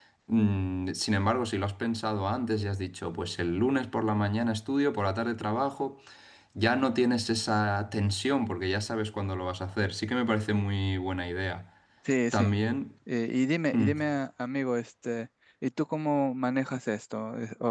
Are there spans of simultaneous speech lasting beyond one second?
No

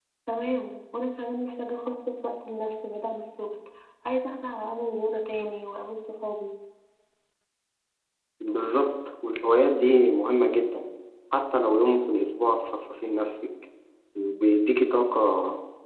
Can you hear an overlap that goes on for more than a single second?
No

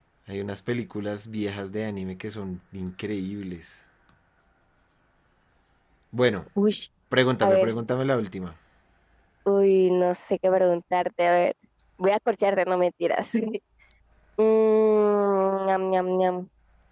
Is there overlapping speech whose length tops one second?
No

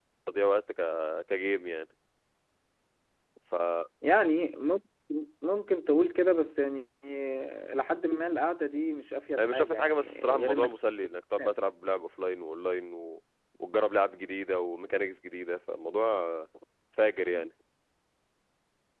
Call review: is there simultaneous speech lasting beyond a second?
Yes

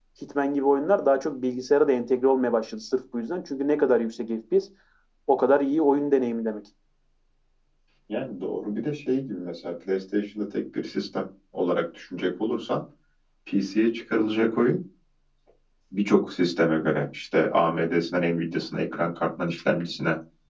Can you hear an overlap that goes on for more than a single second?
No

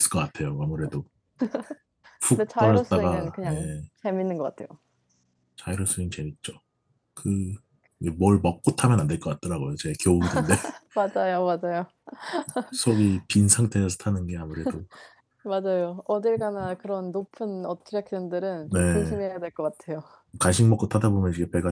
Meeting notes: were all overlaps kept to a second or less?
No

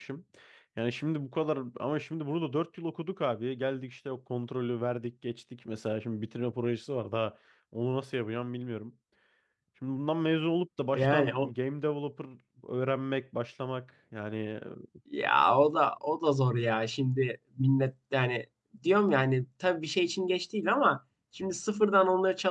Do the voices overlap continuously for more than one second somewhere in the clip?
No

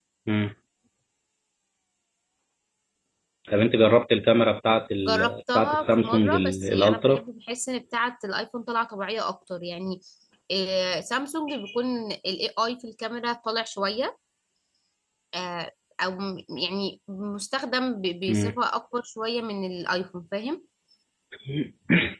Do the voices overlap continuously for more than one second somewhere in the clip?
Yes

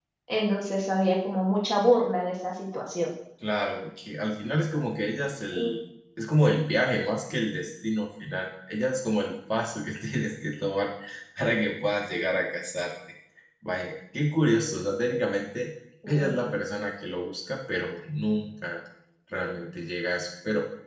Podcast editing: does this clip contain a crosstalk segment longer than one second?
No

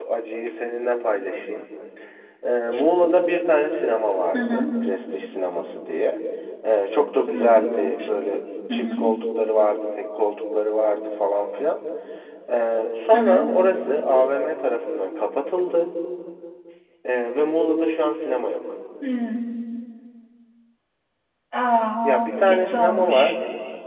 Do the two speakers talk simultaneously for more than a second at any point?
Yes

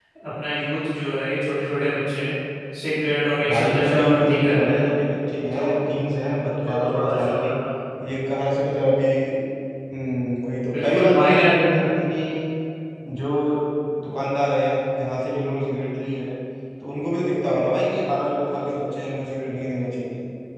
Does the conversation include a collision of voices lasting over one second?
Yes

